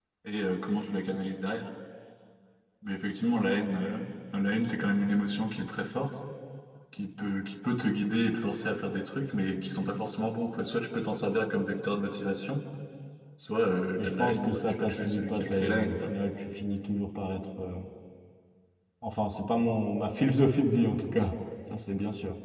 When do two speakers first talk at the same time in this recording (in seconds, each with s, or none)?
14.0 s